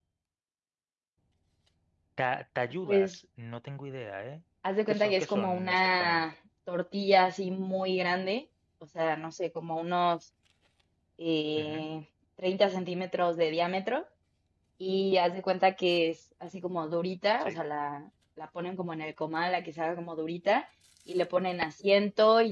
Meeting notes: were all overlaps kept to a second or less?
No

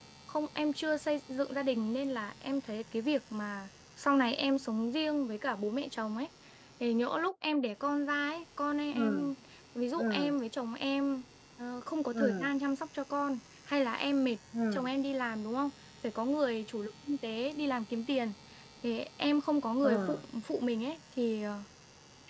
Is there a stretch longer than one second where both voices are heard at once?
No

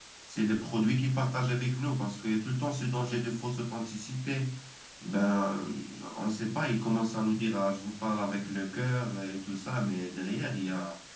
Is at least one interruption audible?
No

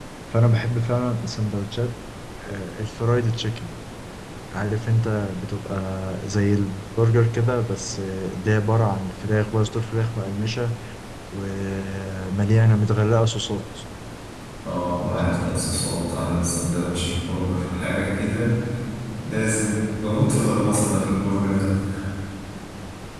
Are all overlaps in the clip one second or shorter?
Yes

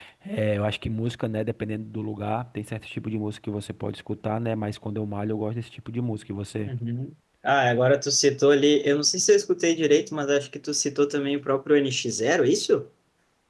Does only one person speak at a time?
Yes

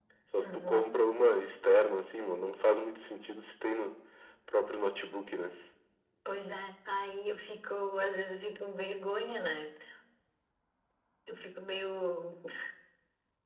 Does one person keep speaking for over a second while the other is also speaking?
No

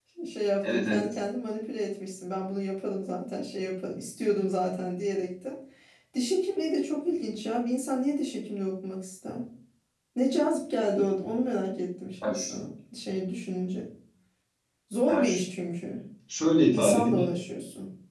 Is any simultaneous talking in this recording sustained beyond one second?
No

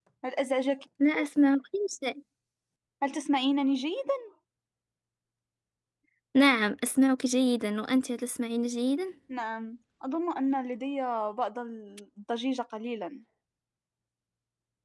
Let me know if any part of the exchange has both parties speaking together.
No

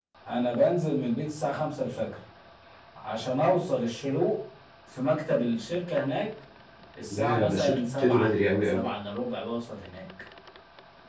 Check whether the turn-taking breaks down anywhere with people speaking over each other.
Yes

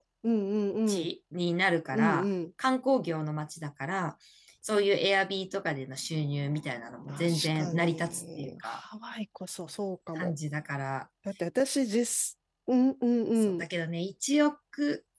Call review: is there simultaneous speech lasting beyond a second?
Yes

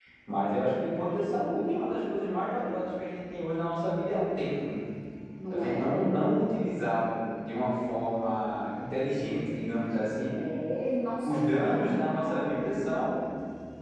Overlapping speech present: Yes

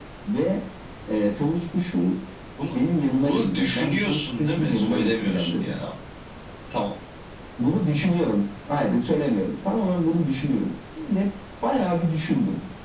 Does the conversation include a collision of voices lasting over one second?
Yes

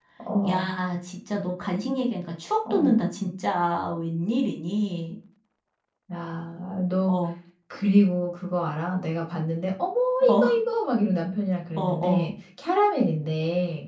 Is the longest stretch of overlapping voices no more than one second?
Yes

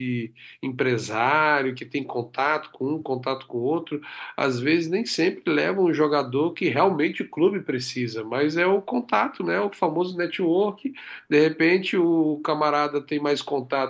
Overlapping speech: No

